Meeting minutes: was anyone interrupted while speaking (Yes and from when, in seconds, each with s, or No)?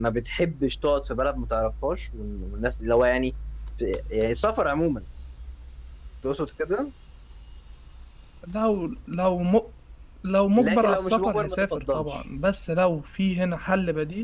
Yes, from 10.6 s